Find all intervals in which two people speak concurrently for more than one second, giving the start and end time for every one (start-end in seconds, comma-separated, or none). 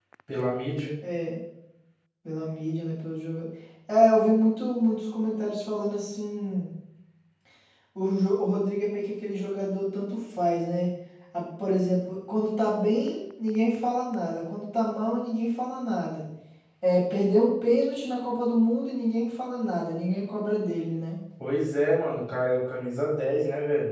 none